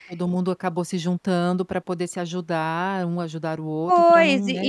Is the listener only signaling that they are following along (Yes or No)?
No